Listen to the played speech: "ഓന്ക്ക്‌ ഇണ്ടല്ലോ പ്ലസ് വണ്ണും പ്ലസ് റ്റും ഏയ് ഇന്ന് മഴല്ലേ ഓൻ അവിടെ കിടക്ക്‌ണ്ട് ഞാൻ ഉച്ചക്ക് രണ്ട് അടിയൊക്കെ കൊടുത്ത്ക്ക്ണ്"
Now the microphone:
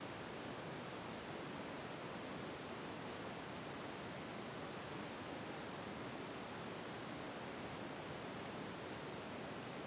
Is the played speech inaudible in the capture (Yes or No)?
Yes